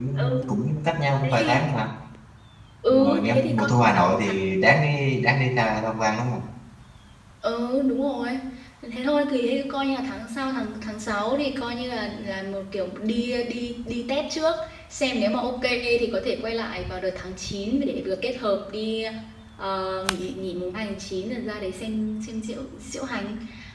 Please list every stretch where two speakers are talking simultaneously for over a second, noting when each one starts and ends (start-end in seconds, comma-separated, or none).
2.9-4.3